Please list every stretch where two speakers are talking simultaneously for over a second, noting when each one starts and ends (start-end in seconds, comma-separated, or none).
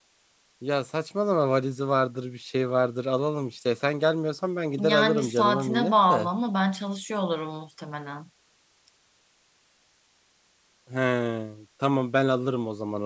4.8-6.3